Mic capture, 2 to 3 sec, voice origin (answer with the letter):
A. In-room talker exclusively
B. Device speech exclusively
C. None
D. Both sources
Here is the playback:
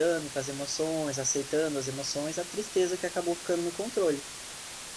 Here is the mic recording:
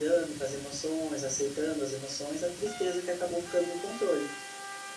B